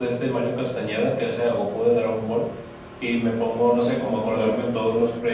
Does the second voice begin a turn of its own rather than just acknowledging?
No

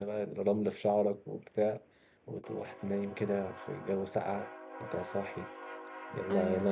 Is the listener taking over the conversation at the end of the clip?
No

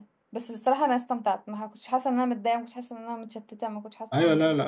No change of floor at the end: No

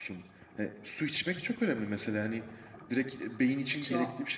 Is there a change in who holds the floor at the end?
No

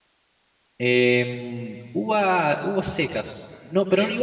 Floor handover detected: No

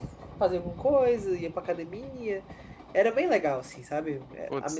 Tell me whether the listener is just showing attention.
No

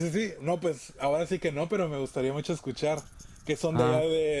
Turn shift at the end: Yes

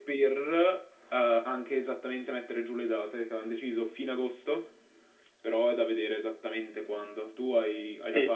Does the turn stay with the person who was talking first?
No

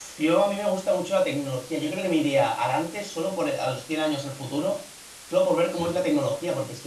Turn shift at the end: No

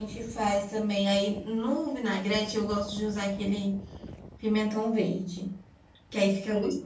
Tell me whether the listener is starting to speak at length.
No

